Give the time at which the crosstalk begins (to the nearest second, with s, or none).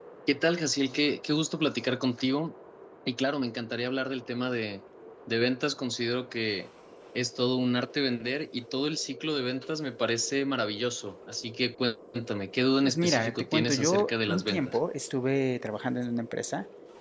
13 s